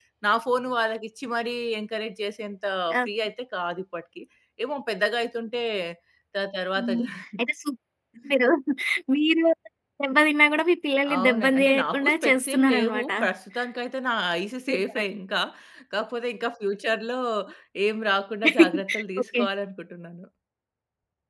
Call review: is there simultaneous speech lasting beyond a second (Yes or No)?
Yes